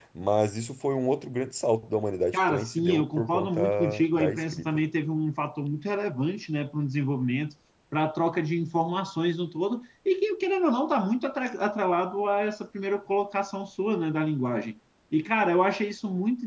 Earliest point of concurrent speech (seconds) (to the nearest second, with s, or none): 2 s